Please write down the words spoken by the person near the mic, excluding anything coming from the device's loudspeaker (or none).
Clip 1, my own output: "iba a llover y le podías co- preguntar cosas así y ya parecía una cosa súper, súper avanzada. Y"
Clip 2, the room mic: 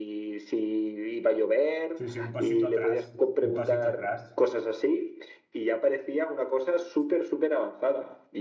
Sí, sí. Un pasito atrás. Un pasito atrás.